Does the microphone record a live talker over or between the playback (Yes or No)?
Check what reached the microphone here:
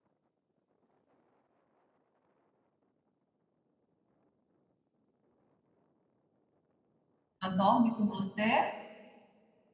Yes